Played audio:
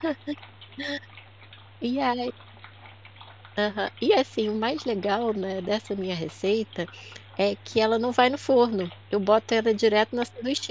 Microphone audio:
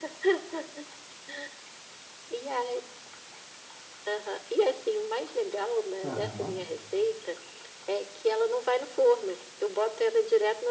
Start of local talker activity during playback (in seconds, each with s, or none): 6.0 s